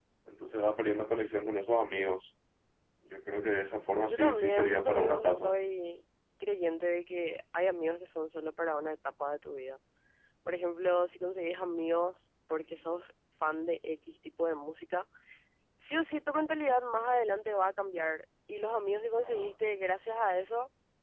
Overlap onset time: 4 s

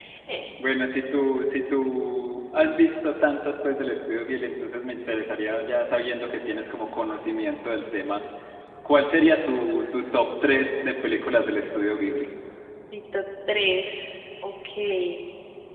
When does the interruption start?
none

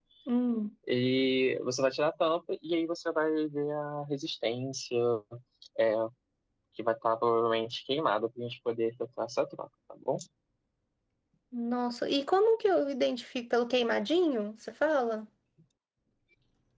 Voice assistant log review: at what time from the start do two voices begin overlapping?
none

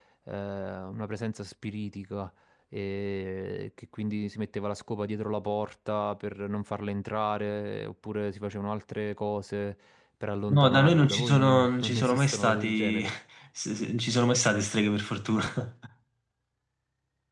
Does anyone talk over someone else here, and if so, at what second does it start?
11 s

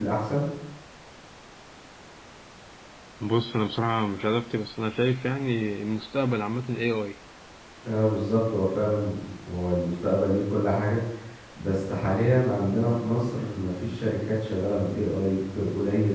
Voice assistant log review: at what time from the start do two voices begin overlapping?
none

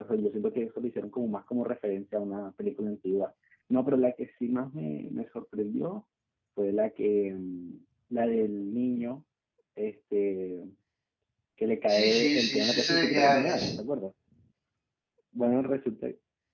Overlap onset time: 12 s

